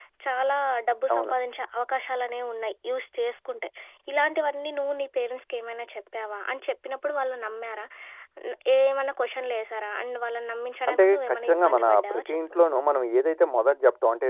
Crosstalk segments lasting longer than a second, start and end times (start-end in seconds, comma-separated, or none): 10.9-12.4